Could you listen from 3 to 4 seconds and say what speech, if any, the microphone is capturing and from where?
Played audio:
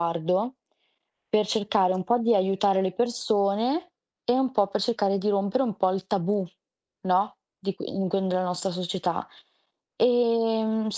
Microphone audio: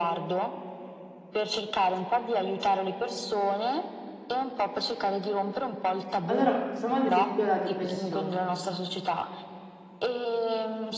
echo only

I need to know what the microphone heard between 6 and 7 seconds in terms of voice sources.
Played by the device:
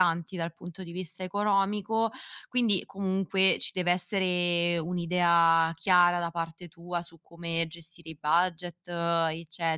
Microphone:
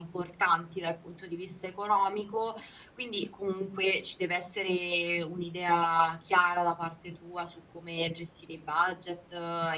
echo only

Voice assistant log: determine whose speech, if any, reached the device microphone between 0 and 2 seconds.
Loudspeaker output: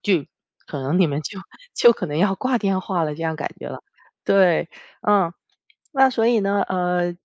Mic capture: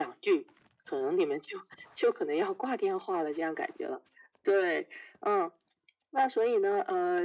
echo only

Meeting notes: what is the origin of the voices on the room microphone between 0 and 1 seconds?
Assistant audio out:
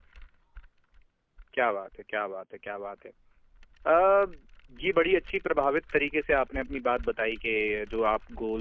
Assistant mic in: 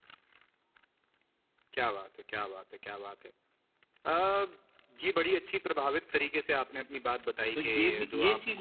neither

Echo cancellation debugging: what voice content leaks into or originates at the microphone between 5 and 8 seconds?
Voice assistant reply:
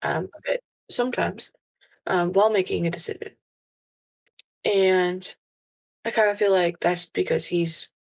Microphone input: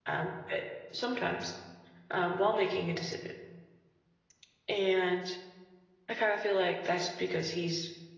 echo only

